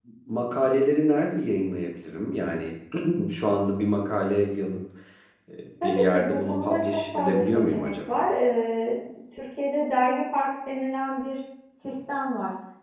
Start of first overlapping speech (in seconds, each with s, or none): 5.8 s